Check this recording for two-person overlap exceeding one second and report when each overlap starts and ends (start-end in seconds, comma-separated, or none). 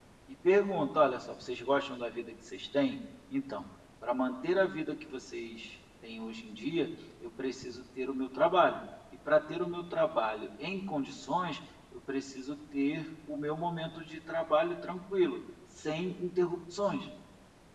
none